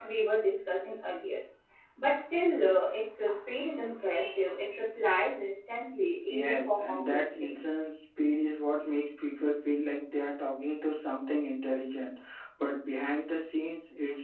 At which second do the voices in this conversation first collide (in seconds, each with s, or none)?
6.3 s